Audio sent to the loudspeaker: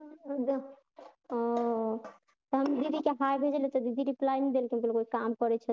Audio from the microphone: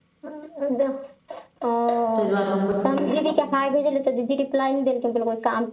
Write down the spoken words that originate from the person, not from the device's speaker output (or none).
तय दुआरे हम